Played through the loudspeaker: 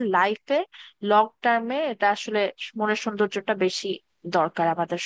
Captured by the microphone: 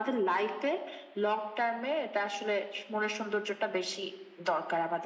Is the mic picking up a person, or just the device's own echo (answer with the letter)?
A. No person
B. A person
A